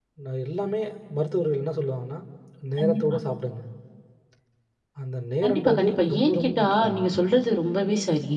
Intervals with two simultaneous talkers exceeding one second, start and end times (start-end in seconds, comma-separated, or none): 5.4-7.0